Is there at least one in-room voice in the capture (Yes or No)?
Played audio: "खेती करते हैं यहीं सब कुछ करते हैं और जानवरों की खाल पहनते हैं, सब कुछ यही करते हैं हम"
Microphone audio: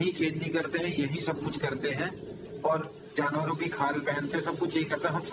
No